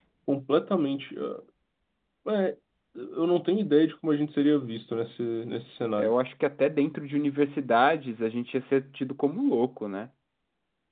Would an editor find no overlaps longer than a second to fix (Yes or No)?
Yes